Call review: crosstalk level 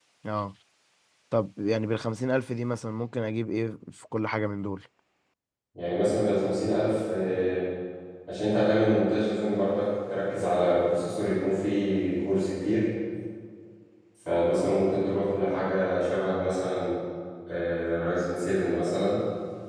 none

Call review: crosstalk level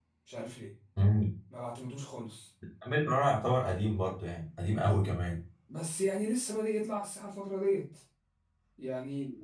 none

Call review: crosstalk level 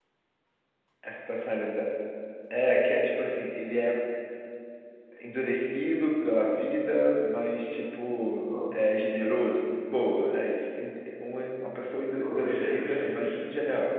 present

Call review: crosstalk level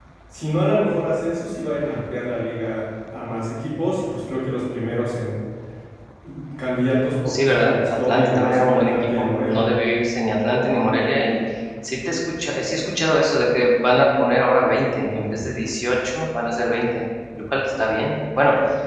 present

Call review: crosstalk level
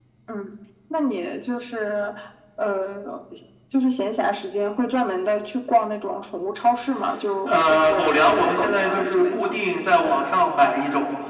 present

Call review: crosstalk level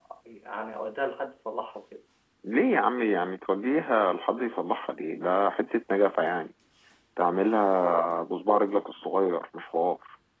none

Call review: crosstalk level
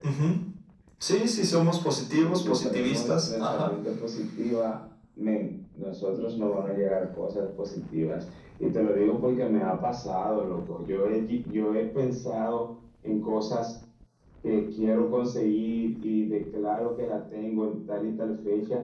present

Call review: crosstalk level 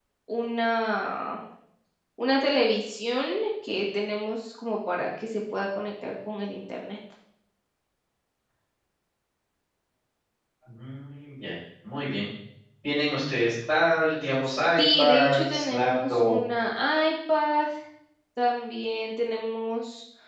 present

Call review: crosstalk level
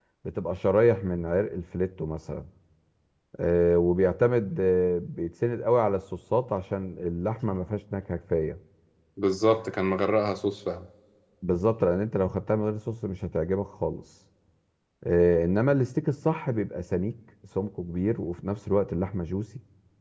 none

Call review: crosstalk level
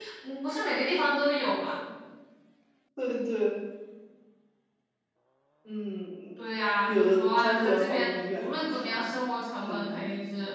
present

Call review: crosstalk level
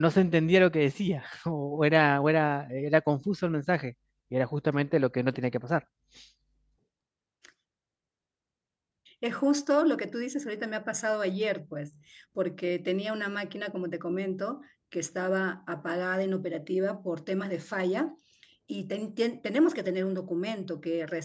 none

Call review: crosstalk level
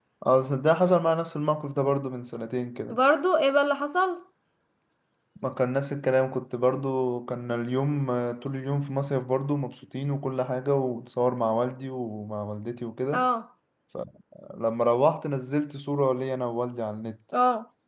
none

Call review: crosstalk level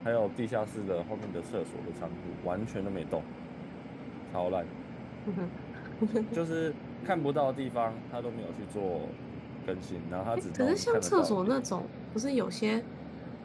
present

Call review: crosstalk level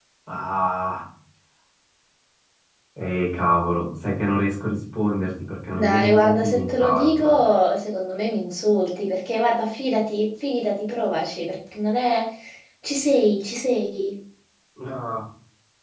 present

